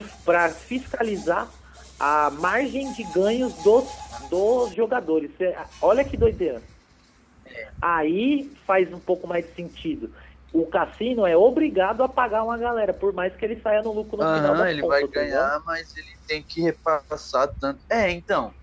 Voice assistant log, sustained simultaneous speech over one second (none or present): present